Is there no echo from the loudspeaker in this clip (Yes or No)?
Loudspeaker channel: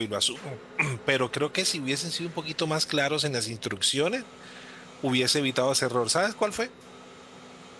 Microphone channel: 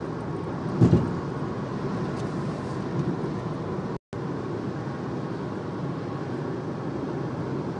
Yes